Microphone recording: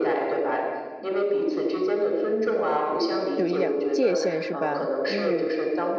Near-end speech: present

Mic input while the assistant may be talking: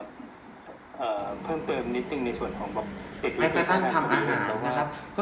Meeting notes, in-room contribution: present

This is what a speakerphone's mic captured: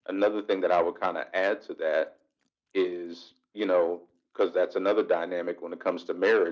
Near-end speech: none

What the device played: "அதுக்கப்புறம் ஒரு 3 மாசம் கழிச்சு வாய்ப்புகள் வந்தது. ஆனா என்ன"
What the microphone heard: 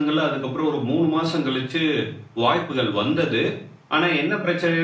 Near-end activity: none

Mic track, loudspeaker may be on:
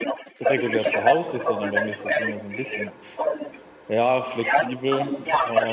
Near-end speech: present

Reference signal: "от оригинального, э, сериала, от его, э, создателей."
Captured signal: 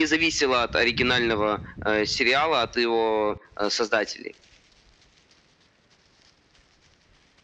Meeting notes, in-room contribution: none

